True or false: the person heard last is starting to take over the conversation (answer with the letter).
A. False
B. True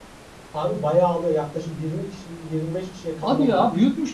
B